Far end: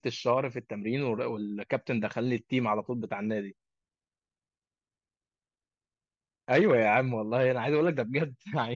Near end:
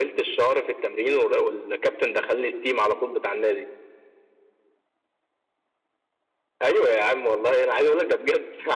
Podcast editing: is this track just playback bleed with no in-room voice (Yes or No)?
Yes